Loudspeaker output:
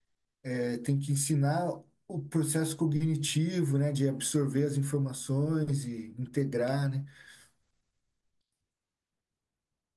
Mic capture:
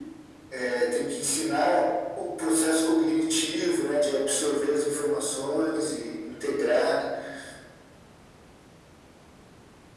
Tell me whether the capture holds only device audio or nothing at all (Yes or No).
Yes